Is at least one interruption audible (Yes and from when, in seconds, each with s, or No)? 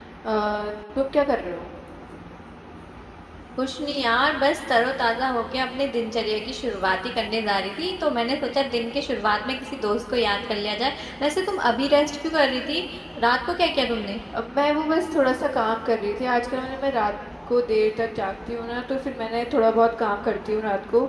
No